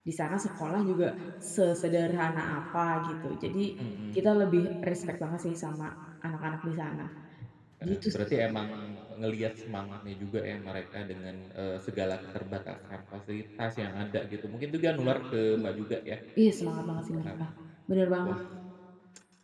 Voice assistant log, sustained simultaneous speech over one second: none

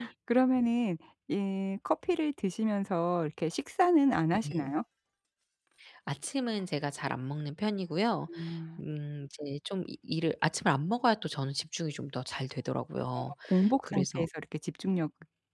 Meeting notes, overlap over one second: none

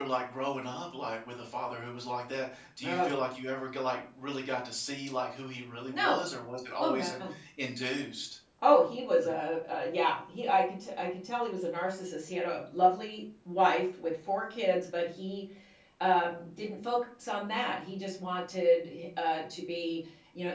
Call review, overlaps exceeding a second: none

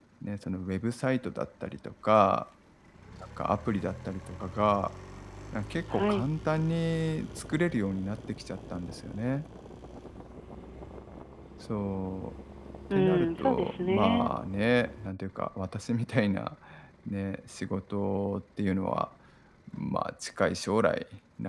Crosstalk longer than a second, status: present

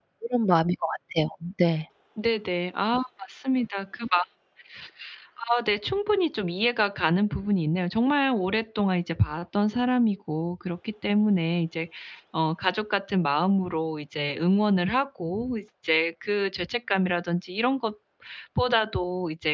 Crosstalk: none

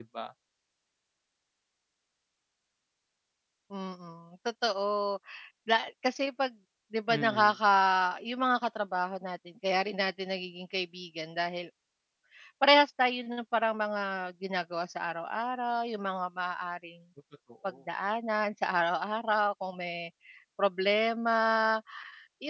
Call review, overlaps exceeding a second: none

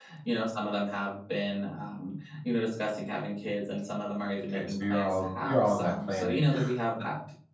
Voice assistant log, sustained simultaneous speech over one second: present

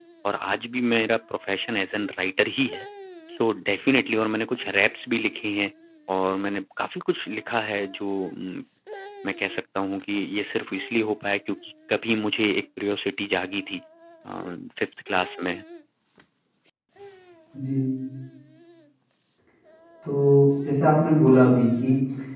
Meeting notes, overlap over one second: none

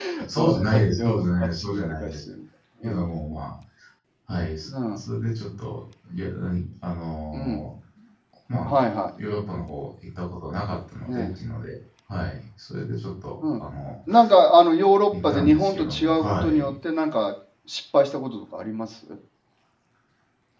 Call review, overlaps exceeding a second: present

